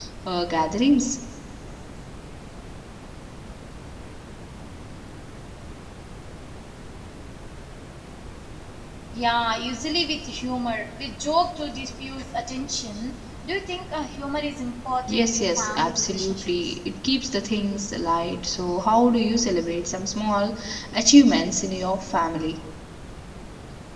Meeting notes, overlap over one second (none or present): present